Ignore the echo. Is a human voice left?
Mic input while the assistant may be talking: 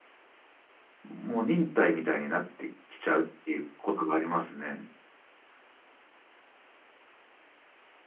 Yes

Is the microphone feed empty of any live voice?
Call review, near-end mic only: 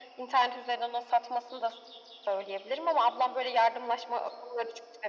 Yes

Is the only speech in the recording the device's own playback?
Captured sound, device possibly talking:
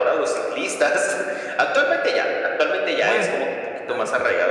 No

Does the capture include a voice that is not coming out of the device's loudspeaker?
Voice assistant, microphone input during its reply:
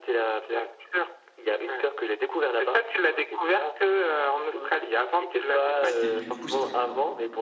Yes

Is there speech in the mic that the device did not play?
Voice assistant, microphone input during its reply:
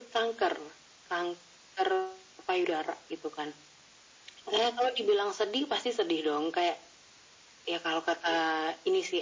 No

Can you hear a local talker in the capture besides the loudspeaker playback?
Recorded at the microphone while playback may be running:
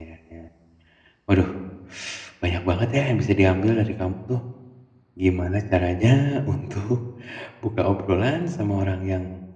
Yes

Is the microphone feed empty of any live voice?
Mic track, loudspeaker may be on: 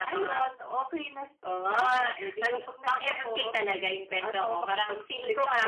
Yes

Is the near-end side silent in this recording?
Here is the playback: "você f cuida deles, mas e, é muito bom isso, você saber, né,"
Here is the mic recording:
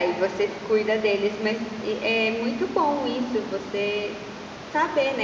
Yes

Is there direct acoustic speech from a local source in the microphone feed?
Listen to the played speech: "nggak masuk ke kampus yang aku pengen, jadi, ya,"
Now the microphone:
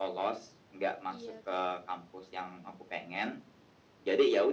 Yes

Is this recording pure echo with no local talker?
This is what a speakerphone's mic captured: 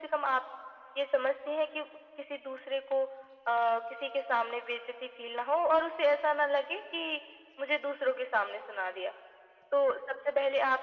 Yes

